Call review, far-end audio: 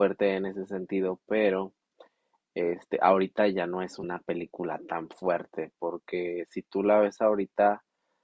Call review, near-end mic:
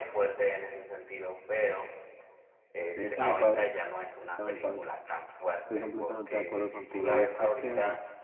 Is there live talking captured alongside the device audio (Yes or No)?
Yes